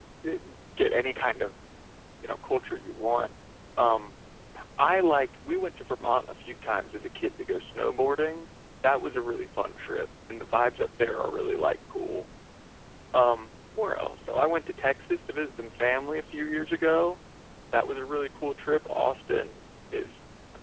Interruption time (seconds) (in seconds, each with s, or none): none